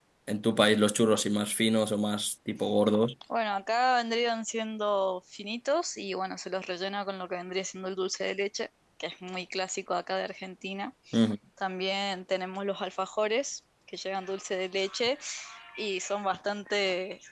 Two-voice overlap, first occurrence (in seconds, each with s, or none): none